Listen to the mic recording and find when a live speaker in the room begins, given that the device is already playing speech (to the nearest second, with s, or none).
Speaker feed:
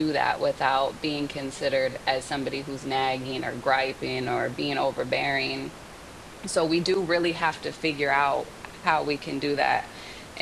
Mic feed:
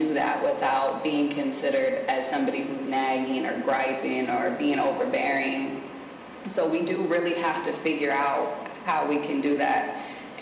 none